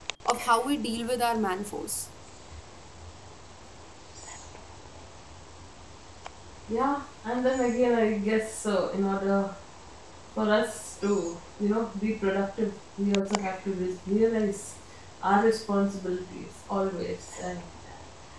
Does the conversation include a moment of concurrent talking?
No

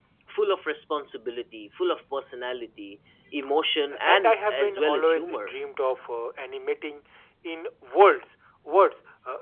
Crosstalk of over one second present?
Yes, from 4.1 s

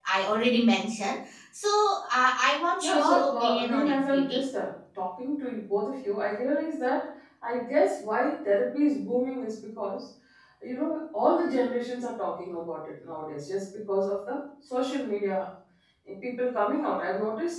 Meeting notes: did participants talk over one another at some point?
Yes, from 2.8 s

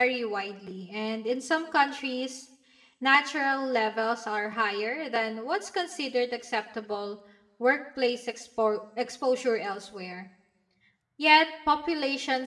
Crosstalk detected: No

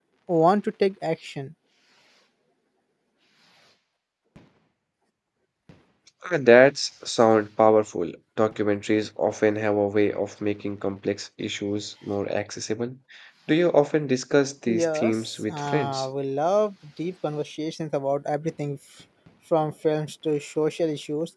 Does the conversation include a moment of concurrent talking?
Yes, from 14.7 s

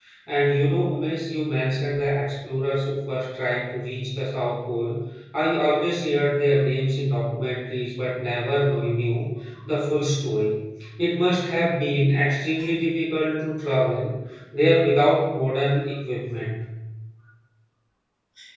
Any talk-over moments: No

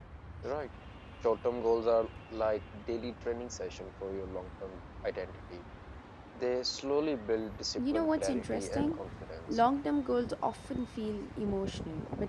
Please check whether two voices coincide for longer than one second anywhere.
Yes, from 7.8 s

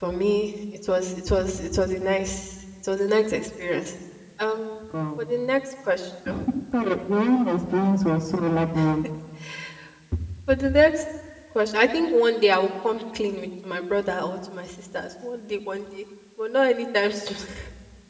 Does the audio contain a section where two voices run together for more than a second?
No

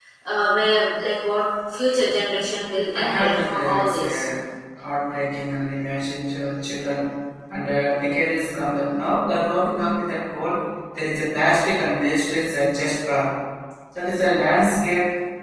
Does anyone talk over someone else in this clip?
Yes, from 2.9 s

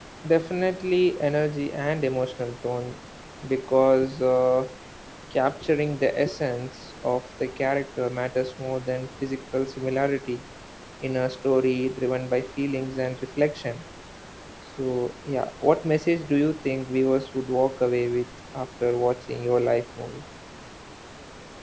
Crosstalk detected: No

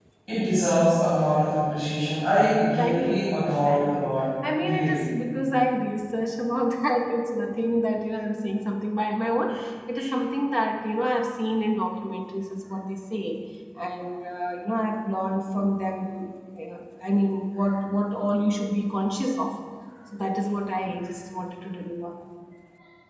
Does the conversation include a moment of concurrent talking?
Yes, from 2.8 s

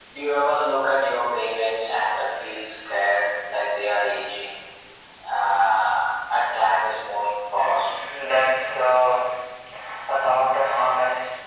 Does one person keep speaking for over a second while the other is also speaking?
No

